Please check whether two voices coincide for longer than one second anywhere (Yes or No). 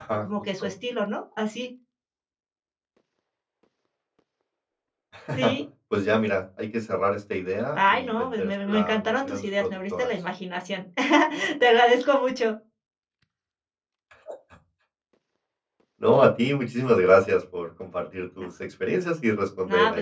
Yes